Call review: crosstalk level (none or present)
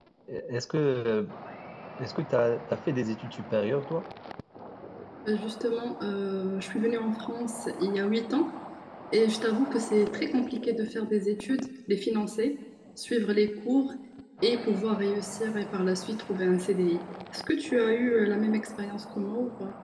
none